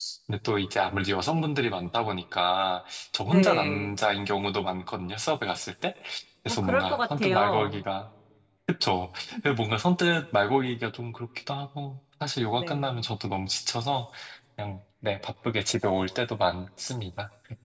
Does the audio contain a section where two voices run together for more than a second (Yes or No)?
Yes